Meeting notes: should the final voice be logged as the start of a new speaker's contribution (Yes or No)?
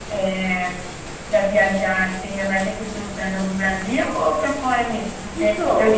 No